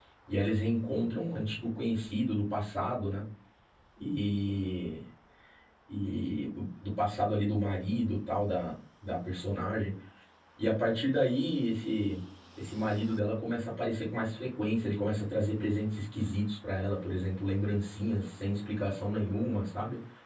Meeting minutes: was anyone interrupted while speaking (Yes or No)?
No